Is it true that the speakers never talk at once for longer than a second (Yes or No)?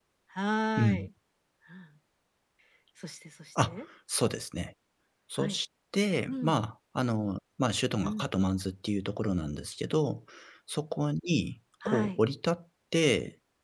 Yes